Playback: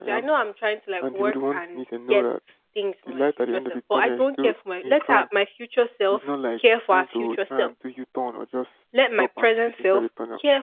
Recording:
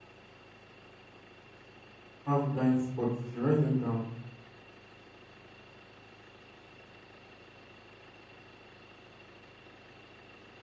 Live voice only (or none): have blind spots, if you write them down,